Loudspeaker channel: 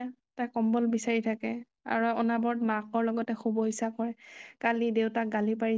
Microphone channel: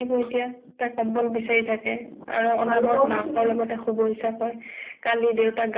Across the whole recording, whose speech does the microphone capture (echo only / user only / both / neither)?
both